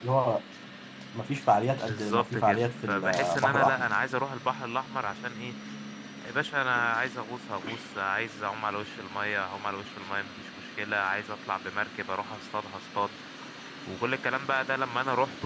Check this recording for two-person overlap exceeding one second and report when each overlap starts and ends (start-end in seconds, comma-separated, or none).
1.9-3.9